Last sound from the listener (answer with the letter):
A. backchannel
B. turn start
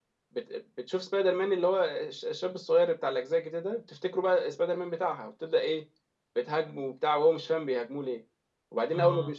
A